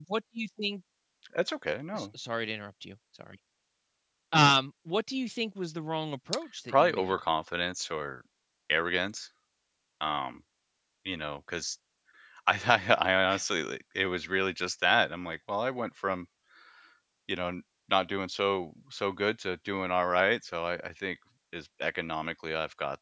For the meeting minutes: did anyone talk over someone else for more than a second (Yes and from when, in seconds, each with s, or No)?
No